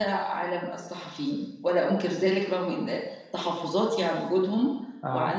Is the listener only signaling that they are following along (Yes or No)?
Yes